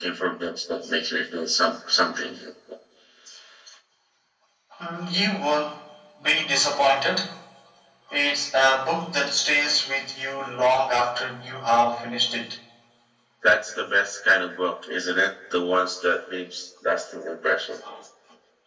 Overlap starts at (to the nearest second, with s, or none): none